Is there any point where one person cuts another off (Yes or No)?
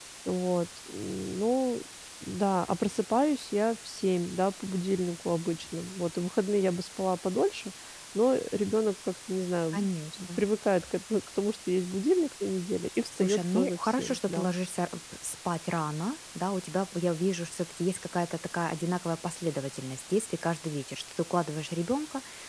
Yes